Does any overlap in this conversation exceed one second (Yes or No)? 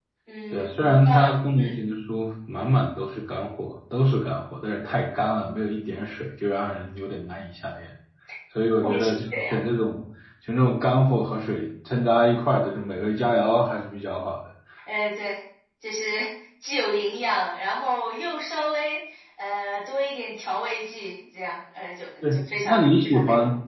Yes